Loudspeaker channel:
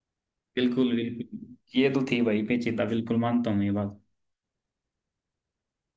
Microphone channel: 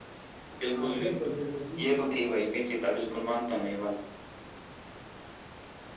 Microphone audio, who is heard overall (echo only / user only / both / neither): both